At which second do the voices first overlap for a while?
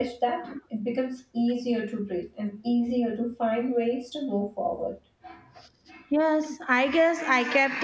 none

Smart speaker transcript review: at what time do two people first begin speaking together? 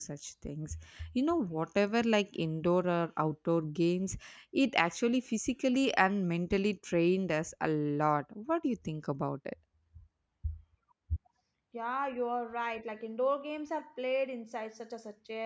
none

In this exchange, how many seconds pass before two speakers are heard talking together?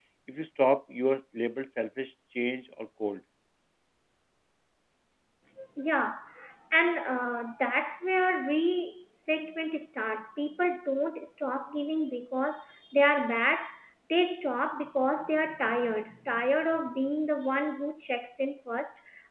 none

